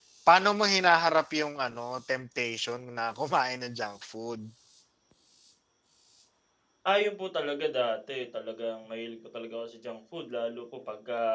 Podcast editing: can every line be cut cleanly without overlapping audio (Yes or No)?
Yes